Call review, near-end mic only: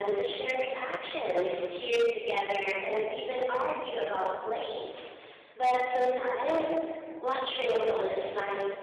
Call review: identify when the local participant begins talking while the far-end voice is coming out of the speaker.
none

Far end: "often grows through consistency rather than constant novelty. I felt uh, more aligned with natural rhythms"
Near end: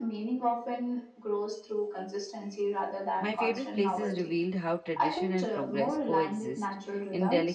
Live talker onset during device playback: 3.2 s

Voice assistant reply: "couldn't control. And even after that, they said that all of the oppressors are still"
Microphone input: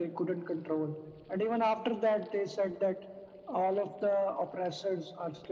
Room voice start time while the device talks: none

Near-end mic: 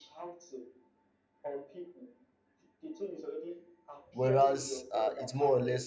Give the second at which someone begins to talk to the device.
4.1 s

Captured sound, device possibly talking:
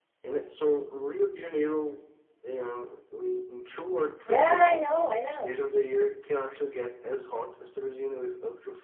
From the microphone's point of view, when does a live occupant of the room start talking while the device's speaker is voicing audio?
4.3 s

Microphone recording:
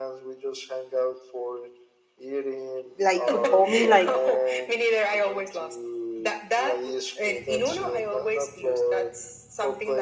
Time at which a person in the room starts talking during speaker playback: 3.0 s

